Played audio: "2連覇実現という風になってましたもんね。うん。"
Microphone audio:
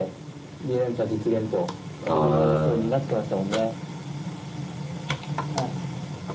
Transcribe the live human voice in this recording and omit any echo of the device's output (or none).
ー、